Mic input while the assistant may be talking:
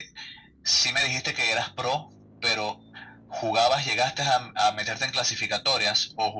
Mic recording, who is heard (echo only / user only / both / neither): echo only